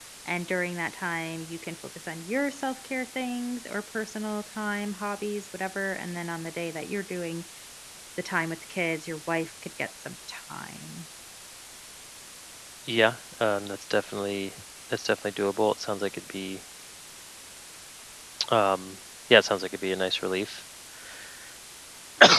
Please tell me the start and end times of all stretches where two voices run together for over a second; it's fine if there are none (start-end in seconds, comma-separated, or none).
none